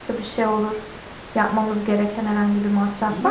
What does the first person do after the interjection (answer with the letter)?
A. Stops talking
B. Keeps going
A